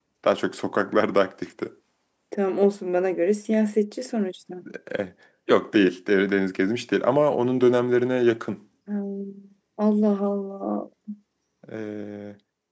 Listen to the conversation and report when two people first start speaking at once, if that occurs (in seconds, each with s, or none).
none